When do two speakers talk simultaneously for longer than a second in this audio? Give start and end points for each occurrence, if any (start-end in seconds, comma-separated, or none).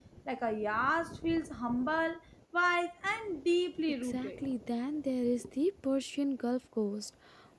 none